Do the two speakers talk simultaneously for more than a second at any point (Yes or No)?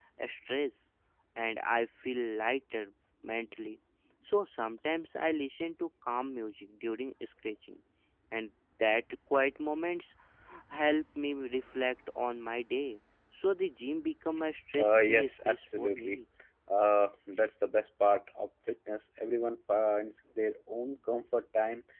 Yes